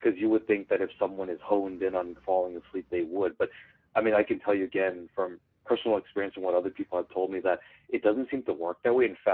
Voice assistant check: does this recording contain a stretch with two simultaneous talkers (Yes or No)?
No